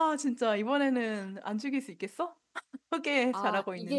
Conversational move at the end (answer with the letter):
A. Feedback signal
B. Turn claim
B